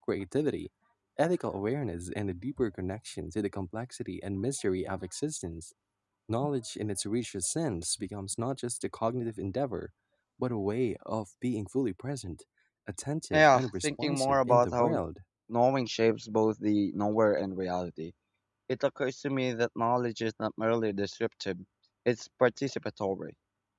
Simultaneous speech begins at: 13.3 s

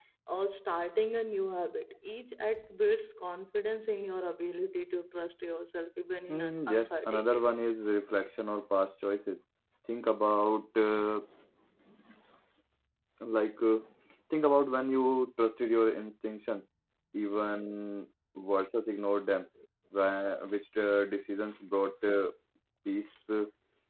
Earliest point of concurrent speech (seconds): 6.3 s

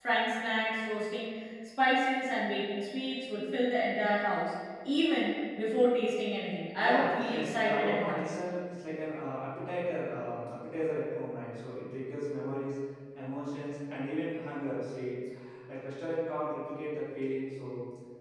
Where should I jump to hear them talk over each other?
6.8 s

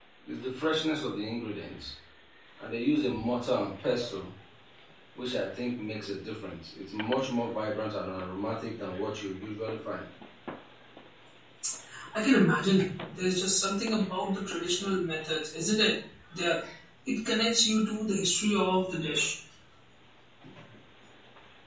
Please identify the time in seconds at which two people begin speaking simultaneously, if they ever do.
none

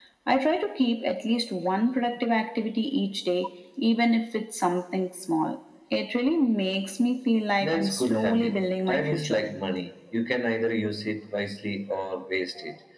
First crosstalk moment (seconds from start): 7.6 s

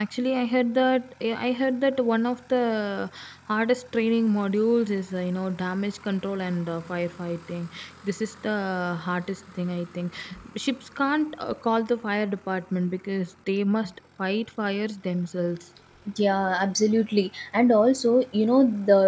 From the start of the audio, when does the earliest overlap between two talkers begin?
none

